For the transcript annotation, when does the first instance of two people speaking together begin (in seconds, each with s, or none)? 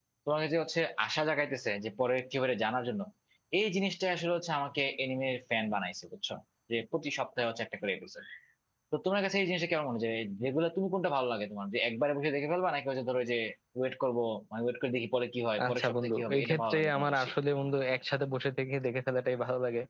15.6 s